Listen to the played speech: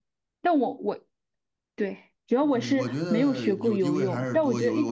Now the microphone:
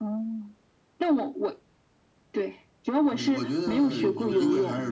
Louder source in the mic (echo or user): echo